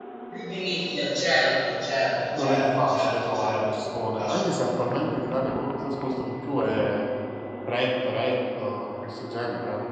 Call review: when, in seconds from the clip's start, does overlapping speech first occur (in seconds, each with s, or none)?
2.2 s